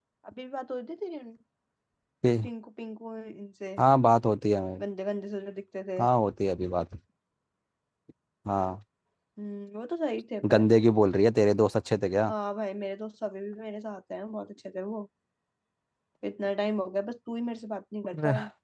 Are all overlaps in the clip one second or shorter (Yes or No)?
Yes